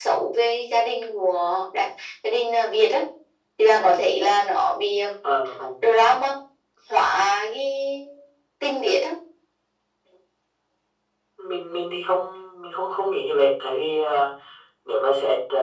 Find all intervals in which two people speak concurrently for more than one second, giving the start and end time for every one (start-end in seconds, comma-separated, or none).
none